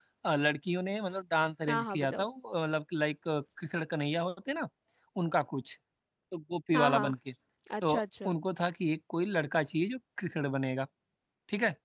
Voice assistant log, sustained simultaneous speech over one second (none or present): none